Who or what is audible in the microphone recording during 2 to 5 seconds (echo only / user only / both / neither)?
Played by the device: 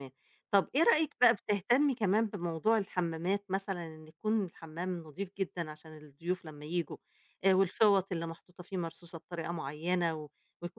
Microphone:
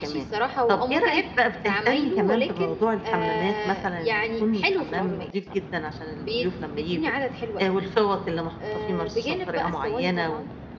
both